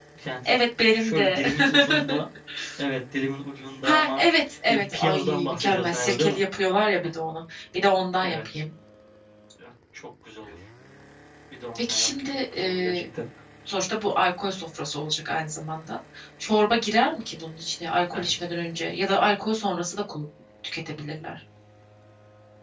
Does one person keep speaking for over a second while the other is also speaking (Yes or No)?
Yes